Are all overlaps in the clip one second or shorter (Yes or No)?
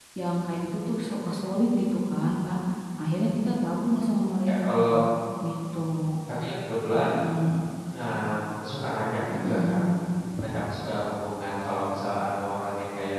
Yes